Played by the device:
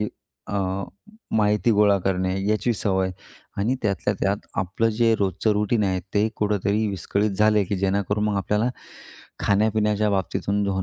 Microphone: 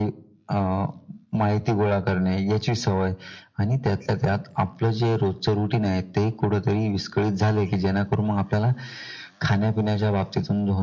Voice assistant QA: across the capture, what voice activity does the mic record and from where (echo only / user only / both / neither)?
echo only